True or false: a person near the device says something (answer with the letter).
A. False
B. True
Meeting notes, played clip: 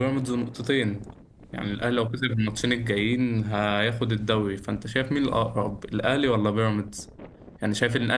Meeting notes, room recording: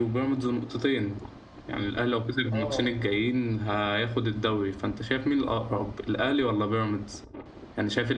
B